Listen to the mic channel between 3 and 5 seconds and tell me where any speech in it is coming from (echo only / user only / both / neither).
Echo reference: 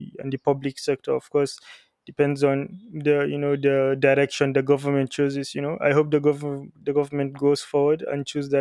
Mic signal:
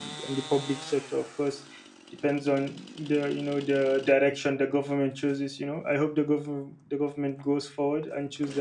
echo only